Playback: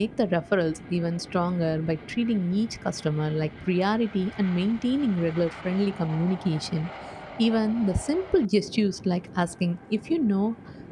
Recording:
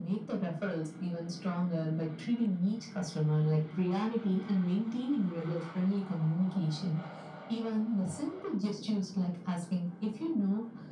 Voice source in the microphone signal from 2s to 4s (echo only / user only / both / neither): echo only